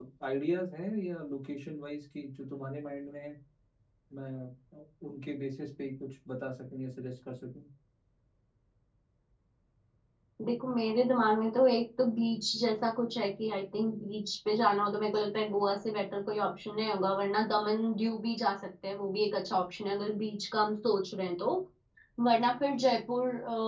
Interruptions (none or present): none